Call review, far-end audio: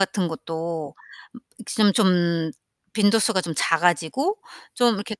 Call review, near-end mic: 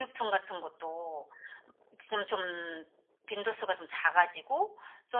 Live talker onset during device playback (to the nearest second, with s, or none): none